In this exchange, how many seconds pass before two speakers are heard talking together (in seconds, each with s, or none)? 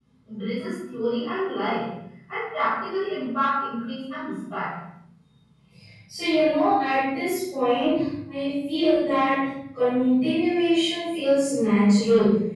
none